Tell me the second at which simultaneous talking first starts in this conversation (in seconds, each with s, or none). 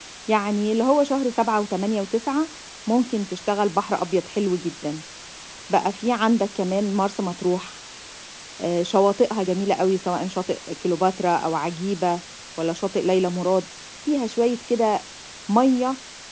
none